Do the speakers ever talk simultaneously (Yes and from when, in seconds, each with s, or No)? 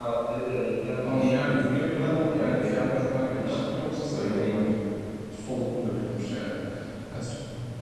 Yes, from 1.0 s